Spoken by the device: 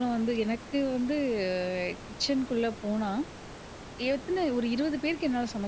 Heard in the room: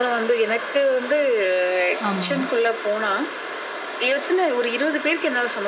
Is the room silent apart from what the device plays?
No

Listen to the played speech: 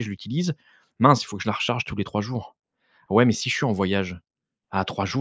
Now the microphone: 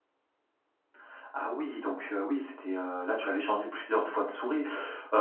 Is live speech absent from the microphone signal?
No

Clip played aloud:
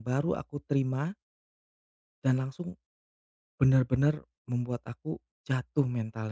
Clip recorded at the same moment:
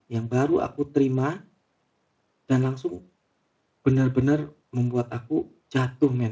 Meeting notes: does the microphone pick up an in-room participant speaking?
No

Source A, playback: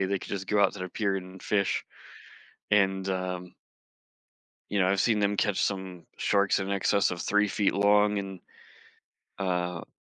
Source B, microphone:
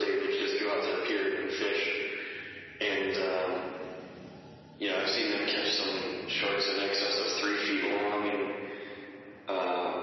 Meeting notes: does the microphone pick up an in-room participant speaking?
No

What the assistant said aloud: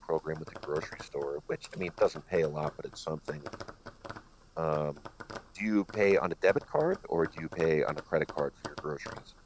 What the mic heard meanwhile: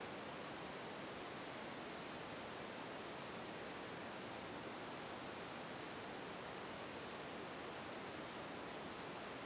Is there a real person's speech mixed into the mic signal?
No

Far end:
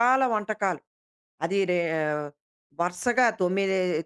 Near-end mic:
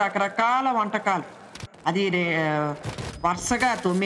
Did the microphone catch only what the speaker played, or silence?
Yes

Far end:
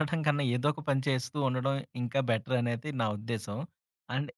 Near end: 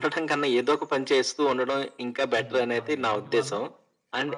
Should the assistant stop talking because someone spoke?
Yes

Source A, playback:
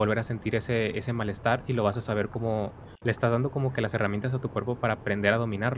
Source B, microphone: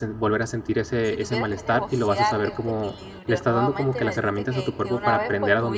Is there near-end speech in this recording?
Yes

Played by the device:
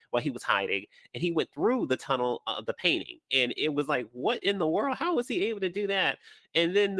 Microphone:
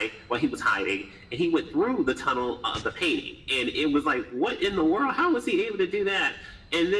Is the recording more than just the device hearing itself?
No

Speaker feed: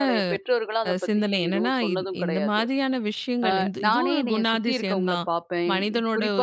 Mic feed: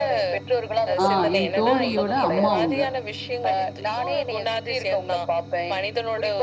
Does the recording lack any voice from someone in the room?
No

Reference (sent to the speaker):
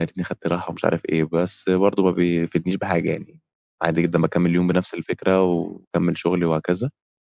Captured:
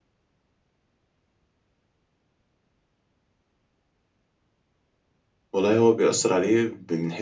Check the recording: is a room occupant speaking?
Yes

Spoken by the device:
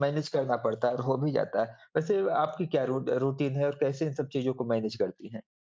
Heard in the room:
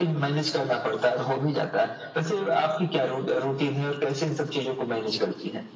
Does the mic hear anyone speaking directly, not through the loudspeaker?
No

